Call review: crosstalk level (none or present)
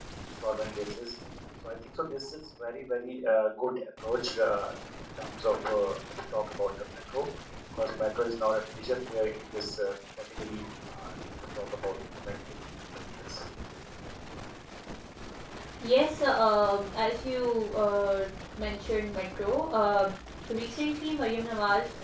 none